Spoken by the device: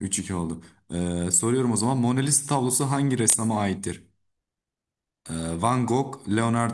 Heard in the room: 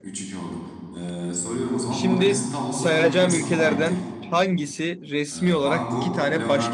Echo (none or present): present